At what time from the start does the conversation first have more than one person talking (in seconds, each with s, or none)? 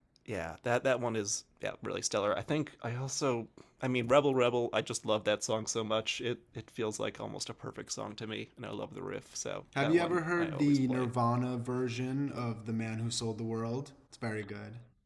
9.8 s